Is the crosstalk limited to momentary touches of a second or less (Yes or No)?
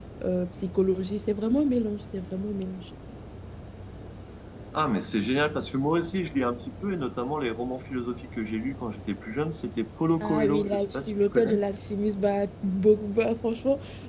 No